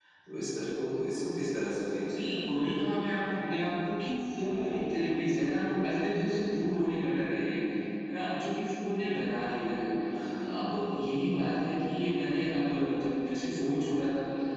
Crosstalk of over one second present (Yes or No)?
No